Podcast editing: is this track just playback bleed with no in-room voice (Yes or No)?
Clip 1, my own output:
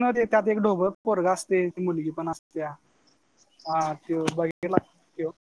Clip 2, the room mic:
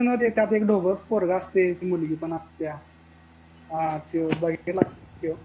Yes